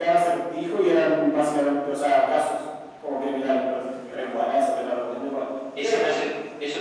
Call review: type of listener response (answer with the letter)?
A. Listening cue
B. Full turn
B